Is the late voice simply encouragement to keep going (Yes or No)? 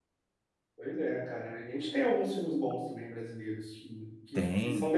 Yes